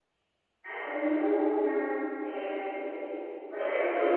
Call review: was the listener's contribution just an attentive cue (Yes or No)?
No